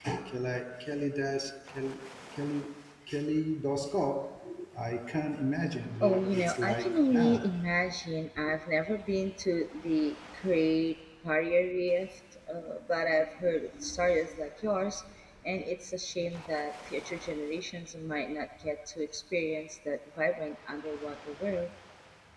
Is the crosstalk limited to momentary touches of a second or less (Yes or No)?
No